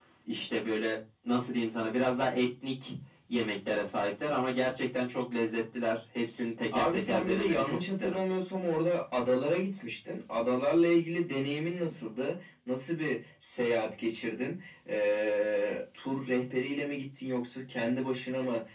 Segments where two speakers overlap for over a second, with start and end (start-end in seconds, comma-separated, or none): 6.7-8.2